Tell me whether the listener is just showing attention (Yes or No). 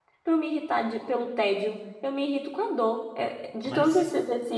Yes